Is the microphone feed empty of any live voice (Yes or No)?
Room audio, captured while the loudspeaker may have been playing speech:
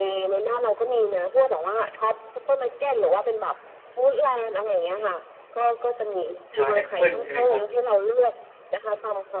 No